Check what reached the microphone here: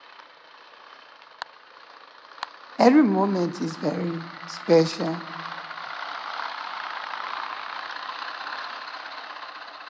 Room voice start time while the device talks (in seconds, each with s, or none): 2.8 s